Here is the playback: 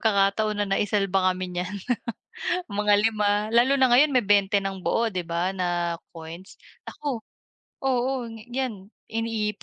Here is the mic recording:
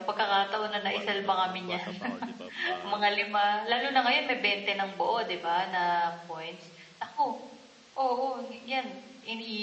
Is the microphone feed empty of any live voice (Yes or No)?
No